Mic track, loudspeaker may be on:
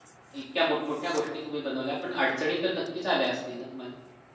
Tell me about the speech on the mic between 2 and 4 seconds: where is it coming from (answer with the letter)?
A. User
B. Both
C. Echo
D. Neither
A